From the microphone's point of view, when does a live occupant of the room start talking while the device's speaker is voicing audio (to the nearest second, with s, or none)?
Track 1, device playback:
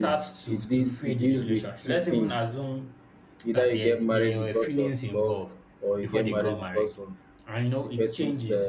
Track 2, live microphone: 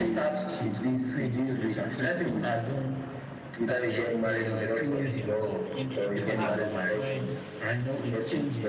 5 s